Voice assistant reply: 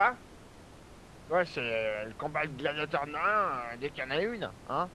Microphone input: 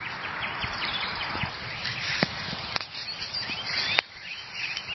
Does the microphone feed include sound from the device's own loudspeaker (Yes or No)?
No